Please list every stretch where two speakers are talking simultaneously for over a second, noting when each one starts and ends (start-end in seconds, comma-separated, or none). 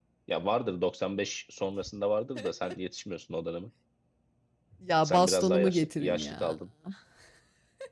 5.0-6.5